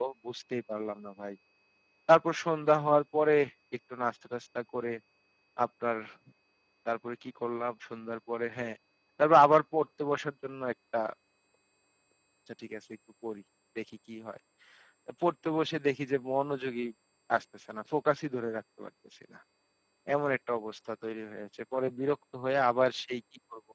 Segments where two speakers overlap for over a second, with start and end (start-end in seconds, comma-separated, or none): none